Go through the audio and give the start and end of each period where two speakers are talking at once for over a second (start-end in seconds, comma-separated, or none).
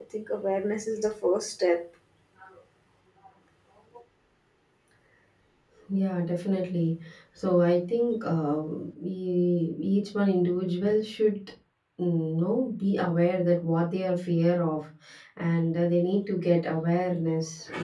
none